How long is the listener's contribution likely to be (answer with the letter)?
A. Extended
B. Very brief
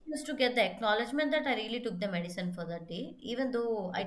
B